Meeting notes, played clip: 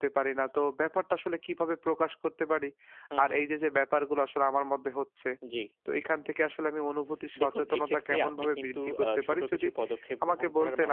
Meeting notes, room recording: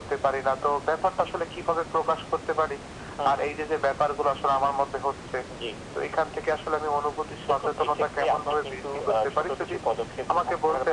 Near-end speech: none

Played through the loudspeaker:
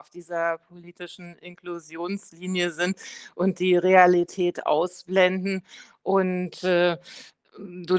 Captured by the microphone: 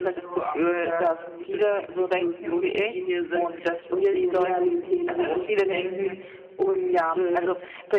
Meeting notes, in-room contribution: present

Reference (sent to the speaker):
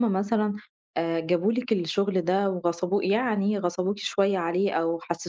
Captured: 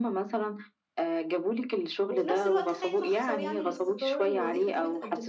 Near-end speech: present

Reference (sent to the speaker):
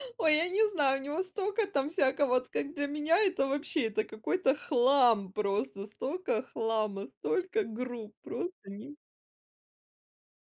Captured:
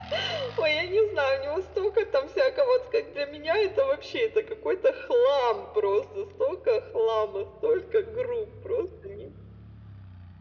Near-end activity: none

